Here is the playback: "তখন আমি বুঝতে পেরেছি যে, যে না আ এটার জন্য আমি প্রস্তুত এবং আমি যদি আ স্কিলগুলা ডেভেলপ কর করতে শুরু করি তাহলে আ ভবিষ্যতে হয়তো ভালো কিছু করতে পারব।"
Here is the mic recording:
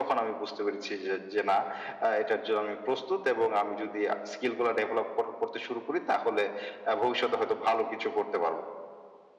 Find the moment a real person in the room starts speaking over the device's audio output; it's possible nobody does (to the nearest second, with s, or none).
none